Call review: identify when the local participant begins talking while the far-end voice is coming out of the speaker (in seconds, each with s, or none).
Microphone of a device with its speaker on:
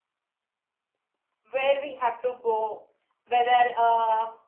1.4 s